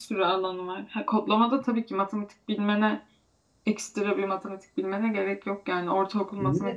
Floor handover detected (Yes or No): Yes